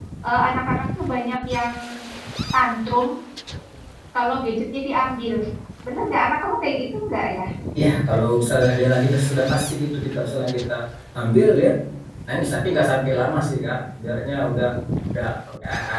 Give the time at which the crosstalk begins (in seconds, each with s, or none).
none